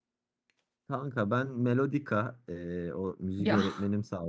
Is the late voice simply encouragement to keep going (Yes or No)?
Yes